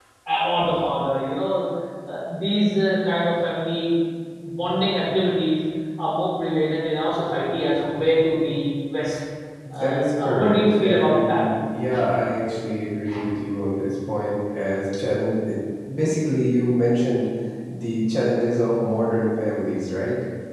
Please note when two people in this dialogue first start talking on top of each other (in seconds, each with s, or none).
9.8 s